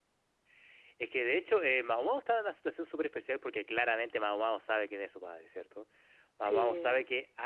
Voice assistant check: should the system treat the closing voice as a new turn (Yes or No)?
No